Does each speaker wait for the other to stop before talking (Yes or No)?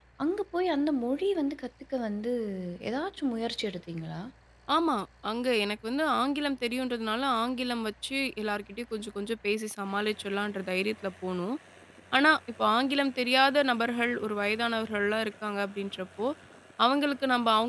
Yes